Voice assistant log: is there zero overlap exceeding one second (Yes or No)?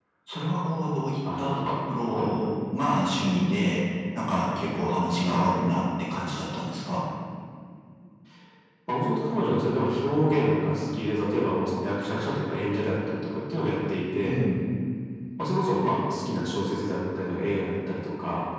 Yes